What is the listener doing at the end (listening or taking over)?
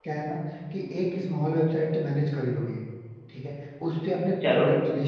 listening